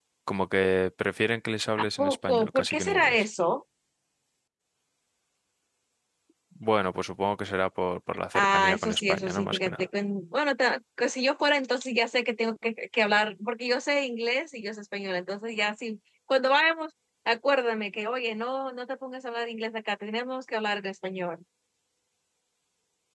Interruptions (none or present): present